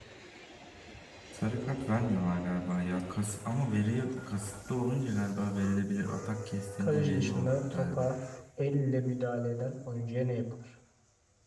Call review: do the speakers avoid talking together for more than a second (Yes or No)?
No